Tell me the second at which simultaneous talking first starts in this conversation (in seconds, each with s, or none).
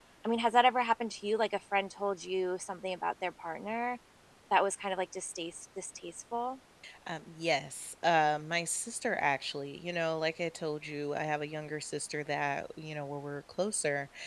none